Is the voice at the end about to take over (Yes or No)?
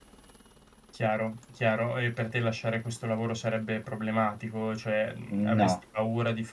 No